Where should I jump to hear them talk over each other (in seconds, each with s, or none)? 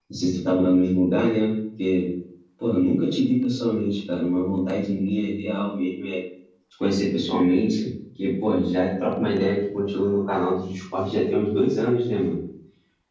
none